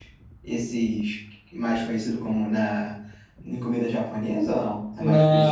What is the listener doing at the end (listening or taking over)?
taking over